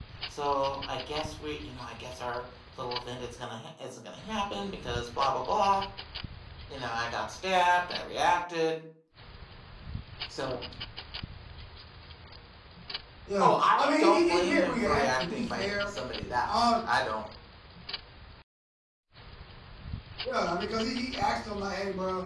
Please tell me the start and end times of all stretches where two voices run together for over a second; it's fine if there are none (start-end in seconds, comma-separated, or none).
13.4-15.9